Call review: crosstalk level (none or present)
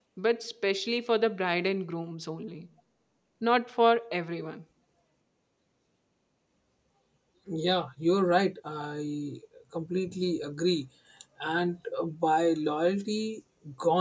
none